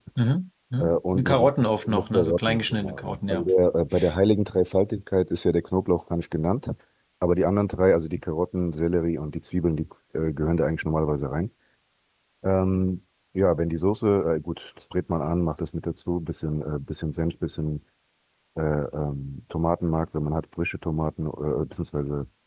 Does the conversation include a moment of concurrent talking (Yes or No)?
Yes